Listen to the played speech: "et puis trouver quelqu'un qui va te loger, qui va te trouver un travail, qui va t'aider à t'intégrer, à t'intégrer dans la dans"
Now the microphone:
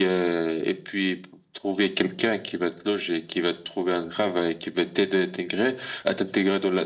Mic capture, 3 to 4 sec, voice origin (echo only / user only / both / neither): echo only